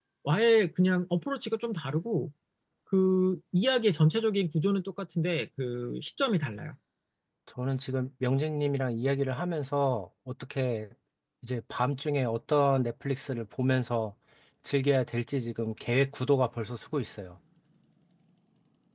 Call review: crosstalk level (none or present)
none